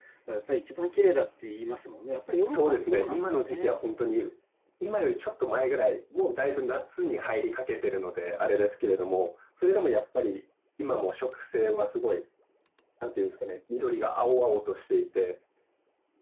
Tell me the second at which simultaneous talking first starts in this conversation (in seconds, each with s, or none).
2.5 s